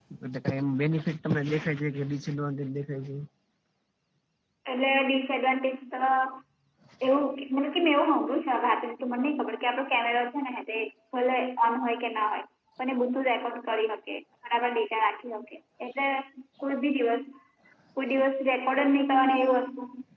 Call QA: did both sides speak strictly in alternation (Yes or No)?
Yes